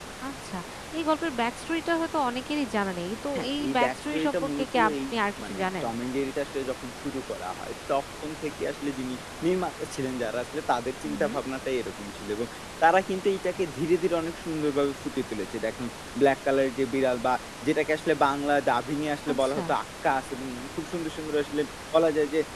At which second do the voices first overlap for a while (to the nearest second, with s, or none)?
3 s